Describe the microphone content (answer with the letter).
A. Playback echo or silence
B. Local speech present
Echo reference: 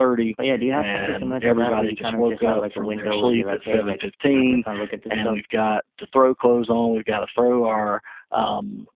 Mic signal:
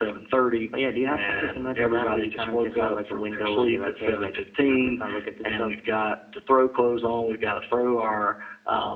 A